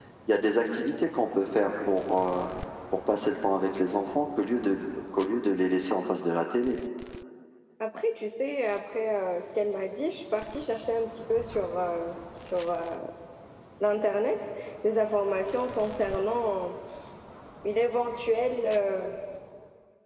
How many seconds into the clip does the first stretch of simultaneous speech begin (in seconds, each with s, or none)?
none